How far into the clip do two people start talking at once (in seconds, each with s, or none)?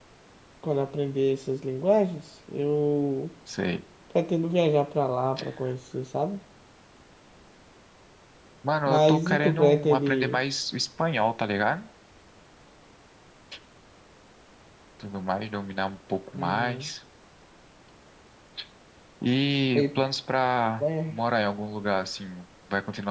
8.9 s